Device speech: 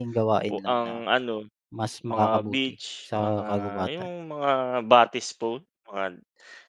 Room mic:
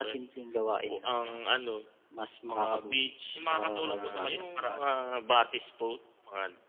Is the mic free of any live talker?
No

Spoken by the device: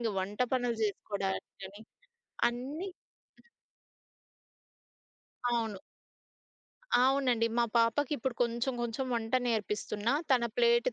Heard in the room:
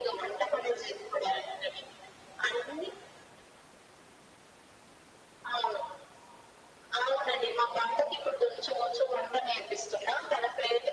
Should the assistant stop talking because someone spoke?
No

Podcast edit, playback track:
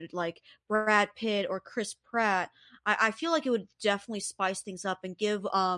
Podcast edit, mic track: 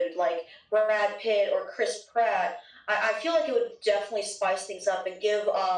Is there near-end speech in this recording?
No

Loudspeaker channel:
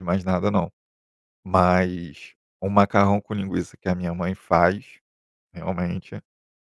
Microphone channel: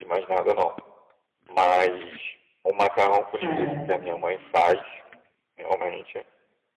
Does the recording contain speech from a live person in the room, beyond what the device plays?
Yes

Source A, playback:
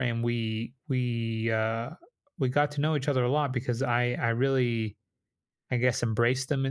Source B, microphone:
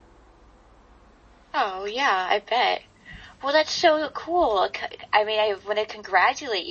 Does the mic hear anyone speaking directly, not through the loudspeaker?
Yes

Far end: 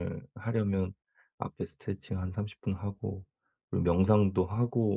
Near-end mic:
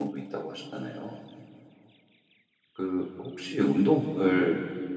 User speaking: Yes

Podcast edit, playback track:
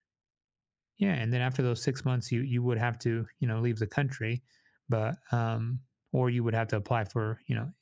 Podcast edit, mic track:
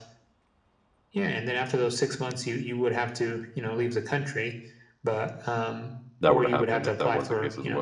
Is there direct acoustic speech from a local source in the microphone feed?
Yes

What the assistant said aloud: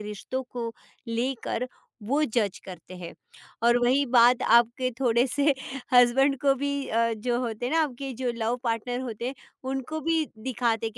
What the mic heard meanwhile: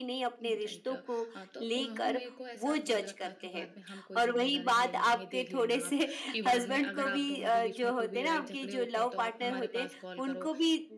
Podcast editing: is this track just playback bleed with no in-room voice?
No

